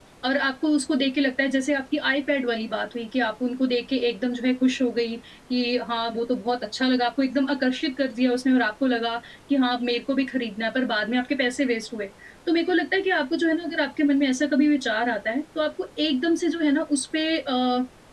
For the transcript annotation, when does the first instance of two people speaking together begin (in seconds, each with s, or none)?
none